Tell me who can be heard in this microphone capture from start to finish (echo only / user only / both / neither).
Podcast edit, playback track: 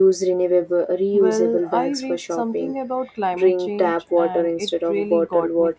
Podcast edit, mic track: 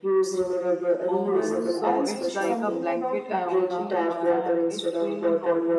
both